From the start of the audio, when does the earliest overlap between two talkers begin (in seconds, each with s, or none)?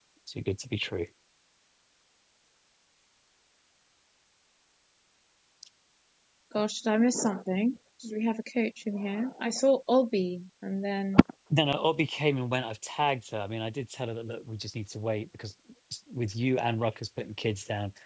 none